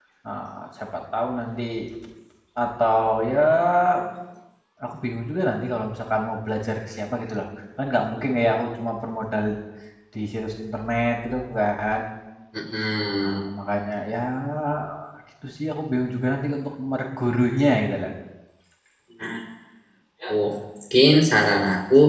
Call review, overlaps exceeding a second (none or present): none